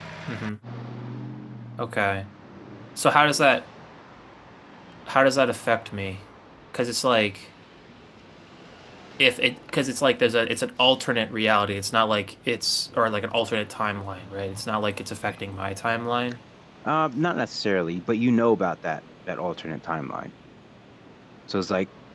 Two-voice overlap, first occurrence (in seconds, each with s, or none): none